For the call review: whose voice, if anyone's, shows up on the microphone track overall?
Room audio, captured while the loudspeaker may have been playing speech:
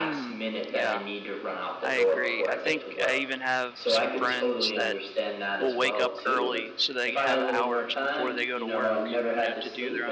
both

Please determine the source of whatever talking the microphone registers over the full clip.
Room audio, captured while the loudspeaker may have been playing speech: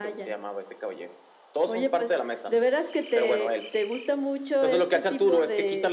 echo only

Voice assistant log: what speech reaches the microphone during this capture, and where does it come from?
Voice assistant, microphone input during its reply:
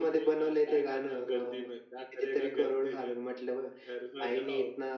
echo only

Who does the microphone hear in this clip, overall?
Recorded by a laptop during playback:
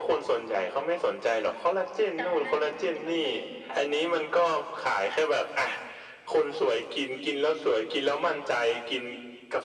both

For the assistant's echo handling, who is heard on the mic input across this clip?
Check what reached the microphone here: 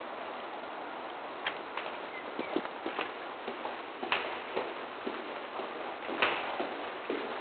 neither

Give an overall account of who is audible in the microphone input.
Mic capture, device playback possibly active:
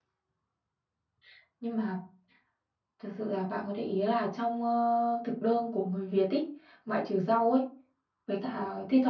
user only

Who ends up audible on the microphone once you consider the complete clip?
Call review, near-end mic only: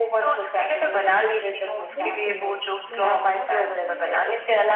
both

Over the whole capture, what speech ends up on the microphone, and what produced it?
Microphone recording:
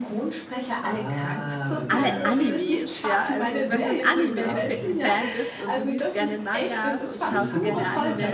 both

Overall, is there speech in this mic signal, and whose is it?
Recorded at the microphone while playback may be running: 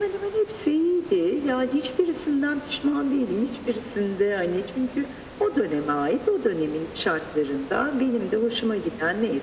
echo only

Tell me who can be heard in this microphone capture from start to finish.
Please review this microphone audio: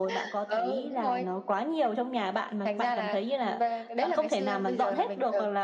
echo only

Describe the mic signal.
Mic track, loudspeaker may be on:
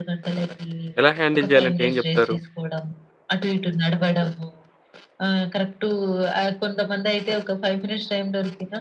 both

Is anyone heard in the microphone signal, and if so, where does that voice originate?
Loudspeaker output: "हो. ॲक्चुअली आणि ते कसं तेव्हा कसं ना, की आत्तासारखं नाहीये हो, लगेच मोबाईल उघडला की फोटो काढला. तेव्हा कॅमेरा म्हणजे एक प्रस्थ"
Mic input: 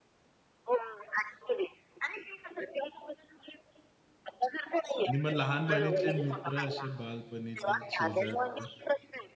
both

